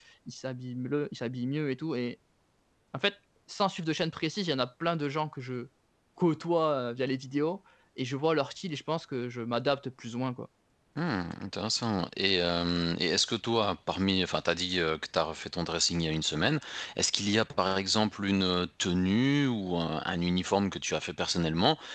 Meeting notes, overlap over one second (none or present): none